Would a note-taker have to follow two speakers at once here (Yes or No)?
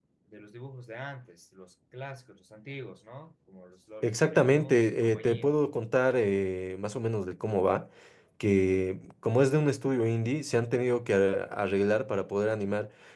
Yes